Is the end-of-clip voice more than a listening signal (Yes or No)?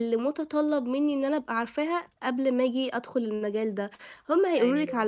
No